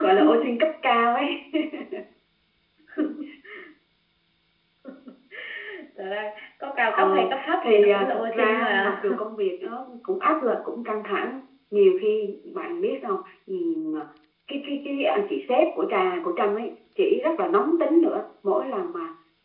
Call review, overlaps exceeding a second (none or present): present